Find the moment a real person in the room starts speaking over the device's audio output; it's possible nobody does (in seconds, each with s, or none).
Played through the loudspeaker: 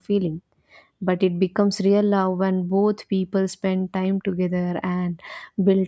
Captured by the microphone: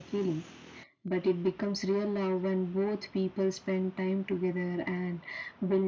none